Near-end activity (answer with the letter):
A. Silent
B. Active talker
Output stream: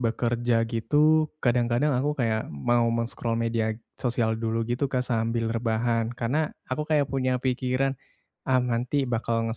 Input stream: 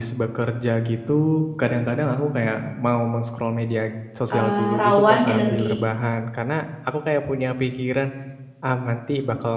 B